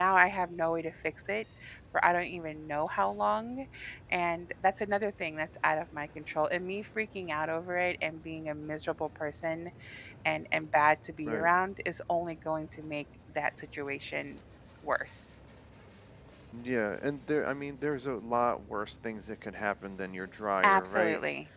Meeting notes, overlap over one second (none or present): none